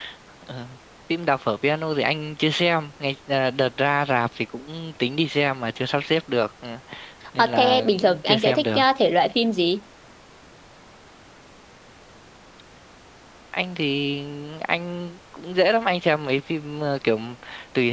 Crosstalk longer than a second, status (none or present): present